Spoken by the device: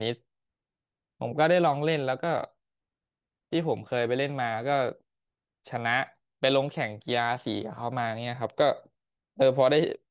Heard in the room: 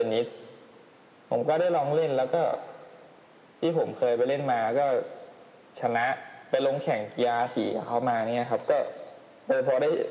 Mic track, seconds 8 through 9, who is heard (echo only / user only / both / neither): echo only